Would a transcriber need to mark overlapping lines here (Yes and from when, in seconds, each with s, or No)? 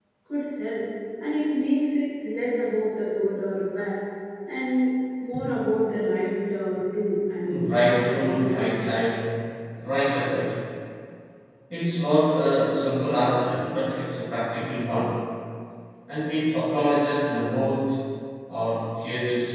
Yes, from 7.4 s